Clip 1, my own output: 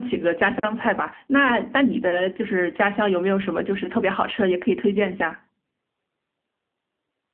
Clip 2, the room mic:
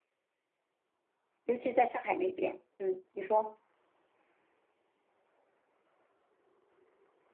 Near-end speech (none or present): present